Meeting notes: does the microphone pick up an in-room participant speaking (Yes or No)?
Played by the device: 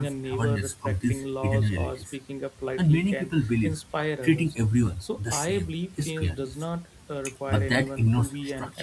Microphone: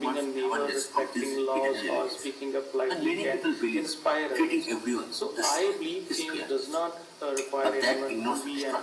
No